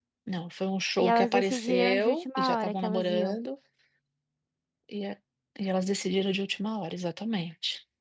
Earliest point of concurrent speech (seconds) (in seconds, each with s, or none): 1.0 s